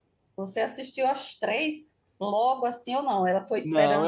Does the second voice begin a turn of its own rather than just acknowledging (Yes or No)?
Yes